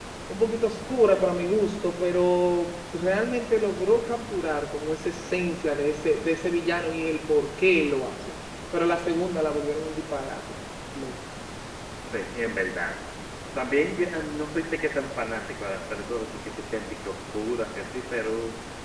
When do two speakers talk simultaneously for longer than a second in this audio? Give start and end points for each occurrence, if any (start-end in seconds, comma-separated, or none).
none